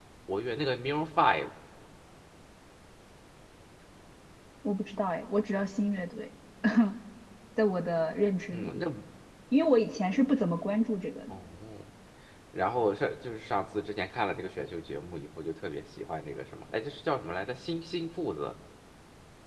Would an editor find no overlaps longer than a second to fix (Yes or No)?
Yes